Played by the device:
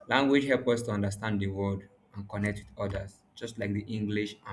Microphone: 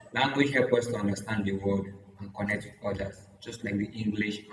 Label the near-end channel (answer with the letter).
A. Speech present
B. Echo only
B